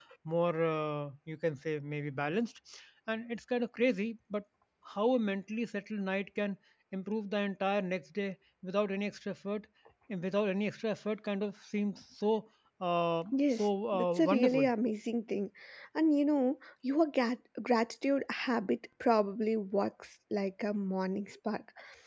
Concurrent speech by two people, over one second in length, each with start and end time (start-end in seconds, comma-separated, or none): 13.3-14.6